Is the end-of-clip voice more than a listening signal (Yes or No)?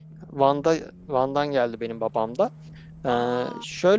No